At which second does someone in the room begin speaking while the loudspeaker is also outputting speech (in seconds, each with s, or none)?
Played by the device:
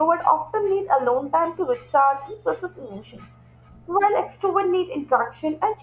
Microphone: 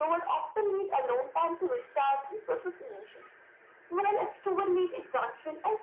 none